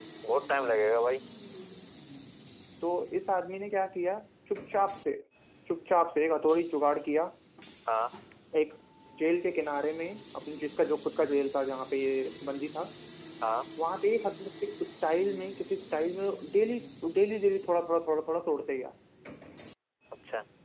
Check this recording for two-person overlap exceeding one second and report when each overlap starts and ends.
none

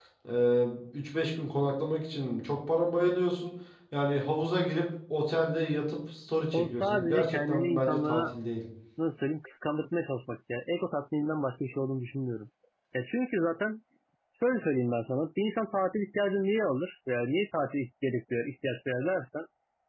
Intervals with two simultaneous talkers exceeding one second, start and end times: 6.5-8.2

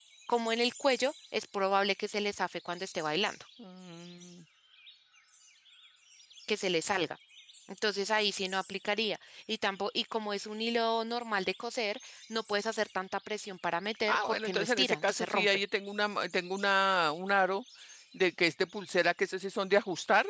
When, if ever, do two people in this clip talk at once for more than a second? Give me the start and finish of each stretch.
14.1-15.5

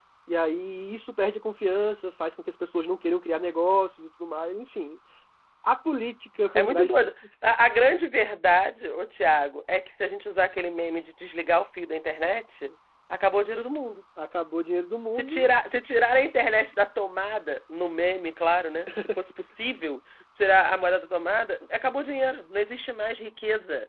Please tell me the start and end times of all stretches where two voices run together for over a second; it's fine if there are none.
none

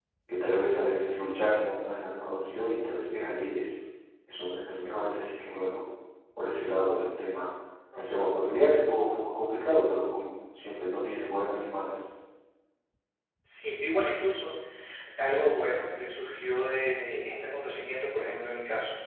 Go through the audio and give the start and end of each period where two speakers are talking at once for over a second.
none

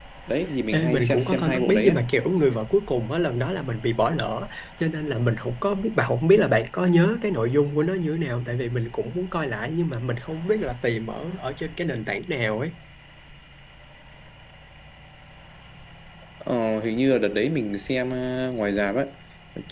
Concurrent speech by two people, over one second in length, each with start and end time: 0.7-2.0

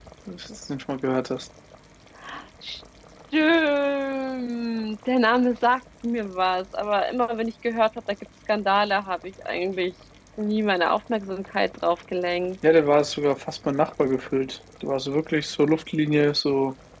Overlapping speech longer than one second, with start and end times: none

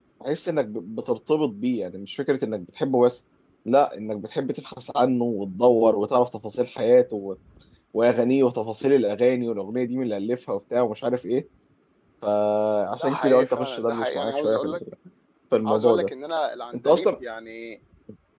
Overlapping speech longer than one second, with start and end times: 13.0-14.8

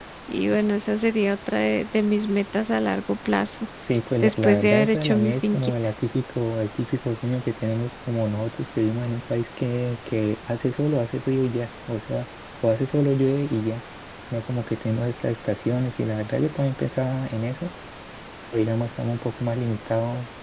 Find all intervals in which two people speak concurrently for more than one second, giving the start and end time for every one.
4.2-5.7

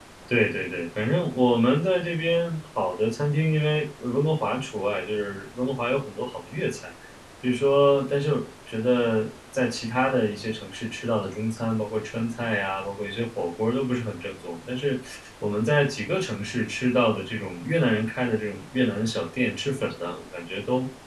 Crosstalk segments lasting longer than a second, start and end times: none

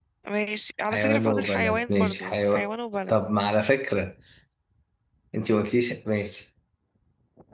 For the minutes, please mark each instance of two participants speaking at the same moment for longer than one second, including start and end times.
0.9-2.7

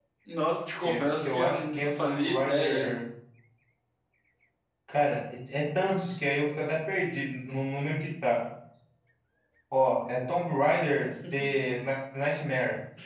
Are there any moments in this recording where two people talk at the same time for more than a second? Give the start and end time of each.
0.8-2.9

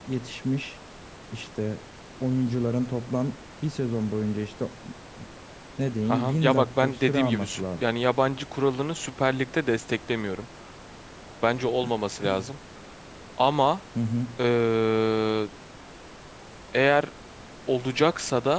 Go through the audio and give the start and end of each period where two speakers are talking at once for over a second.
6.1-7.8

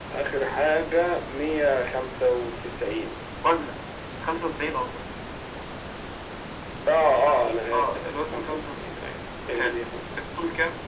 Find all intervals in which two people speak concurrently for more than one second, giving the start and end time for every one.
7.7-9.0

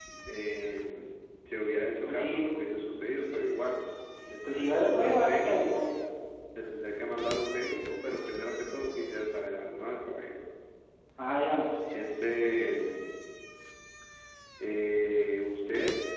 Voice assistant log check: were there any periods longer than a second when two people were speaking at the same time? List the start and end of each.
4.4-5.9

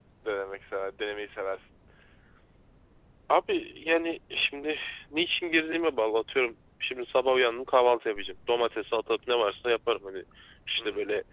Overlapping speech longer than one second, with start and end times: none

